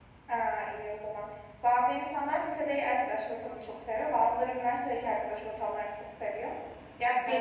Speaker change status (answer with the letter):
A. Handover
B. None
B